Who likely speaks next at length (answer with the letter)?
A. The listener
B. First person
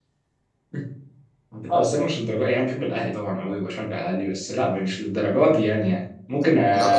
B